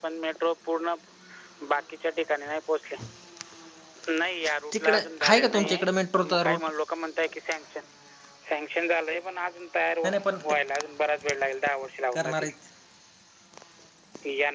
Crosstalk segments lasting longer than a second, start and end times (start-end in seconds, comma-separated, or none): 4.7-6.7